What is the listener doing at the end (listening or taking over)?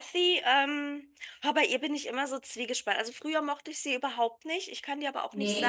listening